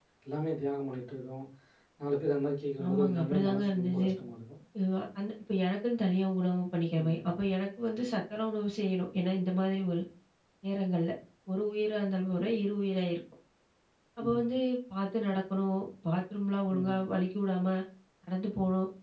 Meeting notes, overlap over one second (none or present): present